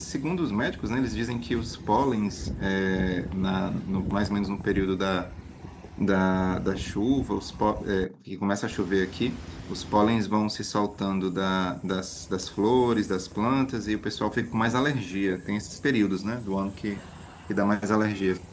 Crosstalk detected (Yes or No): No